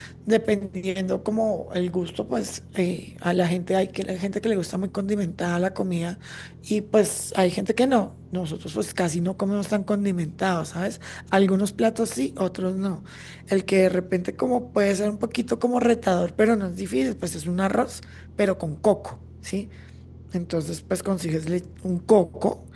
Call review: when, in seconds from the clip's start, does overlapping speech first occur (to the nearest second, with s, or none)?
none